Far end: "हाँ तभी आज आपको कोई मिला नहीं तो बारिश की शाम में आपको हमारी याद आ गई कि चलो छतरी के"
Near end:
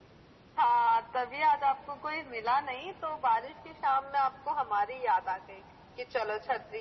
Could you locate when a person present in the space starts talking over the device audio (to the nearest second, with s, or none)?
none